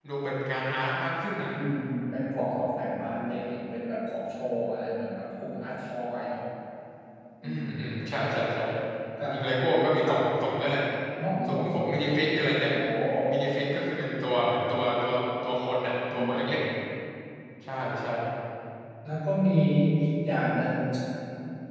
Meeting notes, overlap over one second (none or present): none